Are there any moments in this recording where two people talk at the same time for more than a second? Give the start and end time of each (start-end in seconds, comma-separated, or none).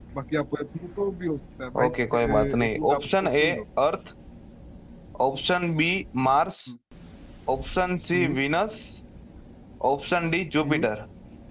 1.8-3.4